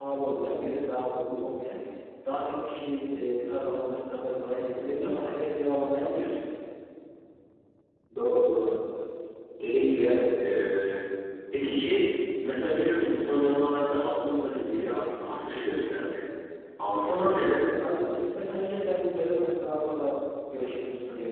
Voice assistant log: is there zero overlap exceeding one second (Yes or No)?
Yes